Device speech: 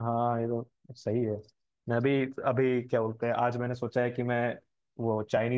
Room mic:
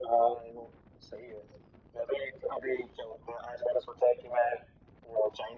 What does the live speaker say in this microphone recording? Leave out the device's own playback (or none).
none